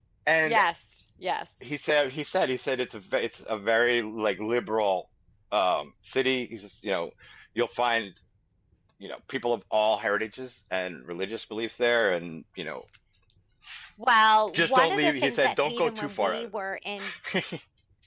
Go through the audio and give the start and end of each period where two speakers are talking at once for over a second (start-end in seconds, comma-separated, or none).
14.5-16.5